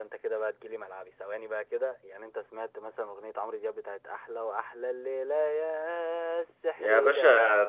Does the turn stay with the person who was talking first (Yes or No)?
No